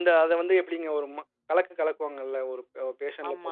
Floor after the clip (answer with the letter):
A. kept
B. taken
B